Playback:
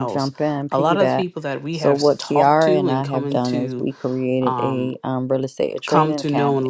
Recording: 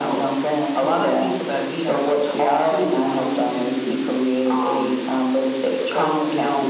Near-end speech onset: none

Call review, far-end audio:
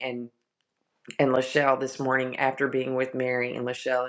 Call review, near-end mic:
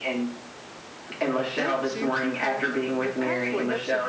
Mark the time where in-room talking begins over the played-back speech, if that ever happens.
1.5 s

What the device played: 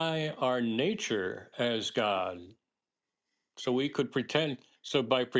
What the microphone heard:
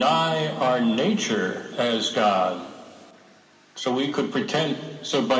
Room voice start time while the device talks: none

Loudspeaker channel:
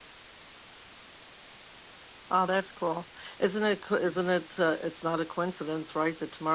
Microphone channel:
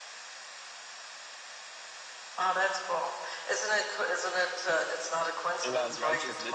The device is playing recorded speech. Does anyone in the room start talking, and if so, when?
5.6 s

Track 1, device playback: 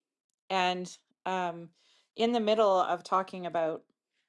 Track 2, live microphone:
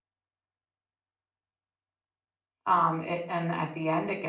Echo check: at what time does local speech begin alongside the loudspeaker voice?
2.6 s

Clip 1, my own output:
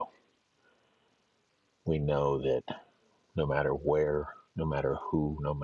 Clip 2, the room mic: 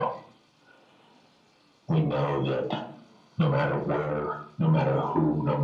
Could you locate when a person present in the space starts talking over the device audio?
none

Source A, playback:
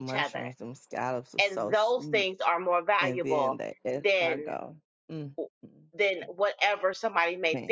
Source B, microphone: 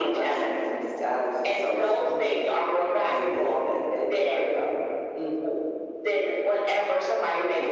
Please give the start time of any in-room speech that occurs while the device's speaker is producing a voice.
none

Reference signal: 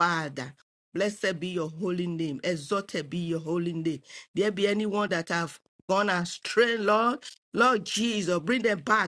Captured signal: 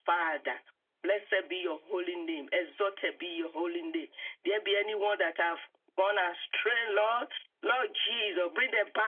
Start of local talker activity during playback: none

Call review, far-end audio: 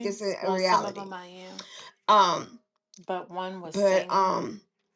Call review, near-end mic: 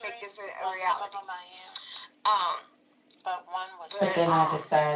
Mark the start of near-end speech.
4.0 s

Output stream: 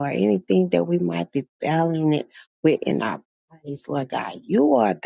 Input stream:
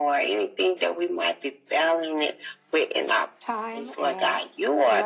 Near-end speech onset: 3.4 s

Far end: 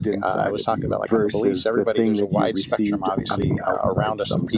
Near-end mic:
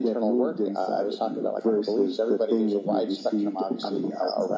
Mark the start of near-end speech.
none

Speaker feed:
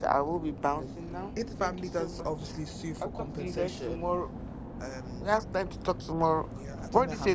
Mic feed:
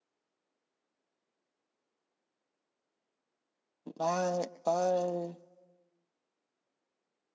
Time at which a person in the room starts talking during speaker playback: 3.9 s

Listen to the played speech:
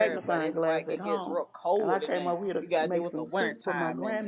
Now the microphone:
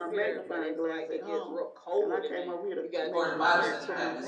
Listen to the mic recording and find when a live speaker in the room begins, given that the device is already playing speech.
3.1 s

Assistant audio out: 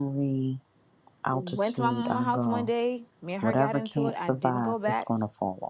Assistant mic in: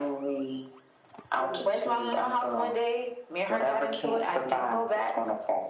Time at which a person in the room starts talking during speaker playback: none

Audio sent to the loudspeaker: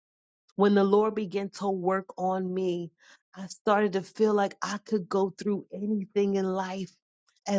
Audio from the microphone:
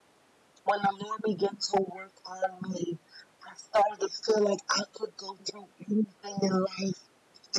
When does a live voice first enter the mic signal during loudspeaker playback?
none

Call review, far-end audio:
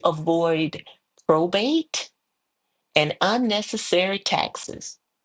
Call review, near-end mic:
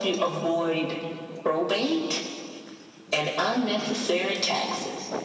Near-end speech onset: none

